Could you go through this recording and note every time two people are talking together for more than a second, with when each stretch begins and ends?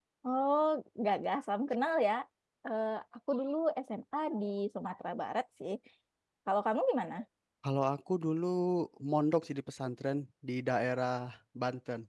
none

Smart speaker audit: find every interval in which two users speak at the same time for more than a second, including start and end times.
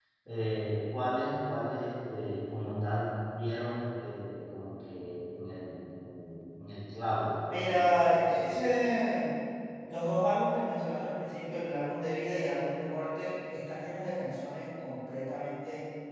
7.5-8.8

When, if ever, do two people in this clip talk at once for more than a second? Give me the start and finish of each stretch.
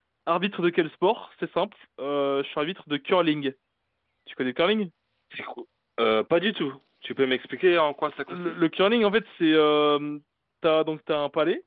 none

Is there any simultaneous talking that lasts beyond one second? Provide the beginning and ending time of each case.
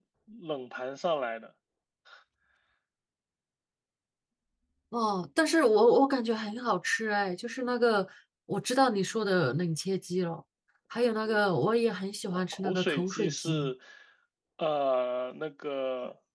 12.3-13.7

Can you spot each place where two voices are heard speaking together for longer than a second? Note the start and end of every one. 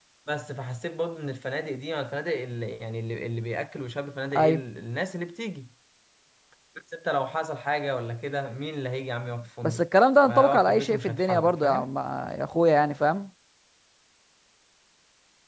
10.2-11.9

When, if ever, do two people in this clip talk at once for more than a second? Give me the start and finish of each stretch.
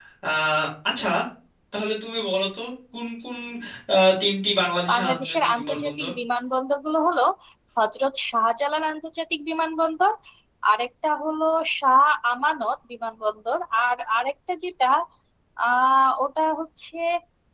4.9-6.1

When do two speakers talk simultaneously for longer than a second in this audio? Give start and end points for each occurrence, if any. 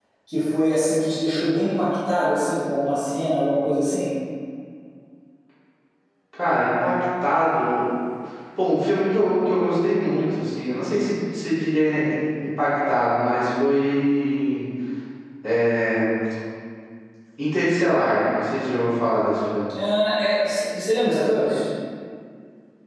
none

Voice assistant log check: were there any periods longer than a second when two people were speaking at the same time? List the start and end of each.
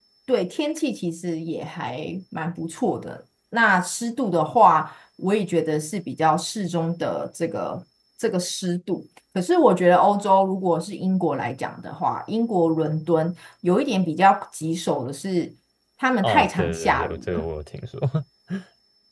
16.2-17.4

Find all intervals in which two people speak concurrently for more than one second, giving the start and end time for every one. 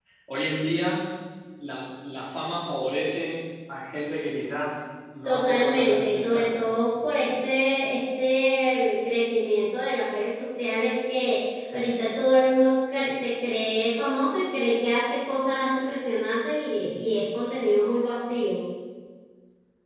5.2-6.6

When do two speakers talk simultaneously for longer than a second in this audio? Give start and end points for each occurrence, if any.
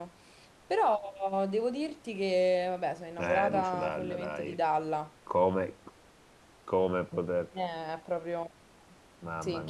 3.2-4.6

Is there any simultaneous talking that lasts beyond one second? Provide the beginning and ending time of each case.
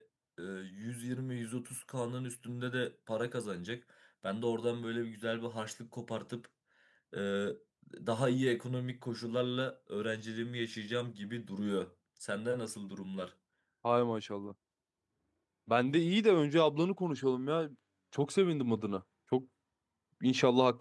none

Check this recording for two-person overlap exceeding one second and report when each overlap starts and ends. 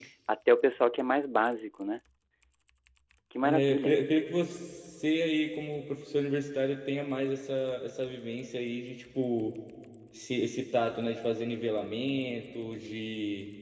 none

